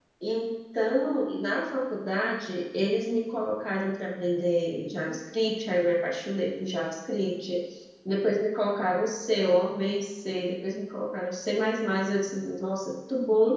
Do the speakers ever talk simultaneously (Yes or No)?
No